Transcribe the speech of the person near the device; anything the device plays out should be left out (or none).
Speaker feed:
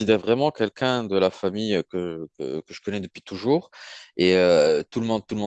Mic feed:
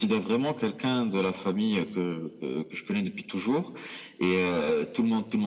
none